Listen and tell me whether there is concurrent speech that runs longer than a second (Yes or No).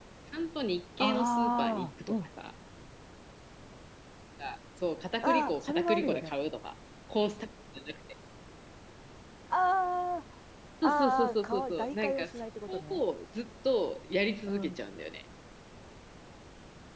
Yes